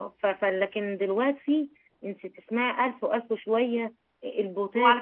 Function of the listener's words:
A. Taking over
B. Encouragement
A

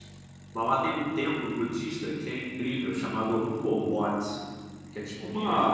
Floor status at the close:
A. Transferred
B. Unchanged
A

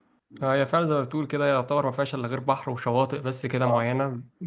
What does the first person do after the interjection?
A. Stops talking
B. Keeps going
A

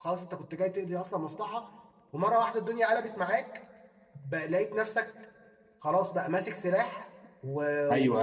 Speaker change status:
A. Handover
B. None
A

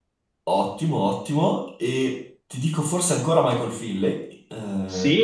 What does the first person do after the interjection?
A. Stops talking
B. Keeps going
A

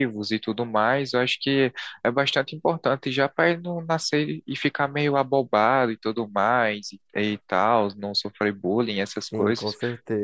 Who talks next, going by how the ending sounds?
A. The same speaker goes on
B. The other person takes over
B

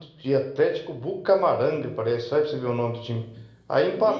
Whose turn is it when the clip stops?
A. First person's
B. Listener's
A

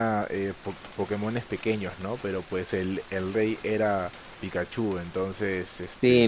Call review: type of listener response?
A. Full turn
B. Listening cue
A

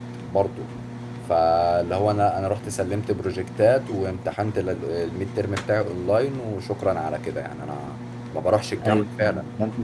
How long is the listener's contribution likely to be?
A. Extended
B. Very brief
A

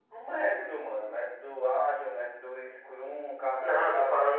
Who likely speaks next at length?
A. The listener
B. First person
A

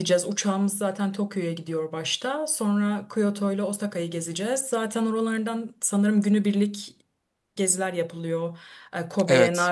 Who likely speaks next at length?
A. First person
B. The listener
A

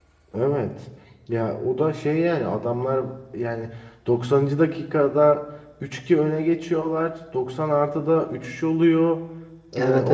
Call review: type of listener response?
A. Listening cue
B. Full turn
A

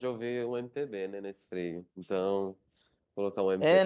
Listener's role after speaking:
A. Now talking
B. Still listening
A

